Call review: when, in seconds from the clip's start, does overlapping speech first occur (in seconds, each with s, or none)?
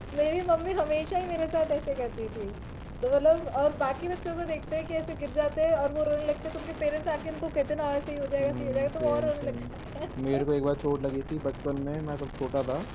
8.4 s